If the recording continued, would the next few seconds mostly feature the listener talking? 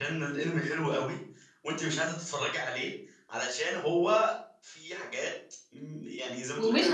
Yes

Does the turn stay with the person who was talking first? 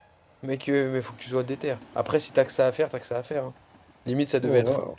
No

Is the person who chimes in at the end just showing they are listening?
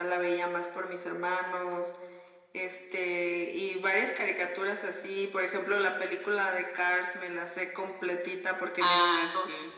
Yes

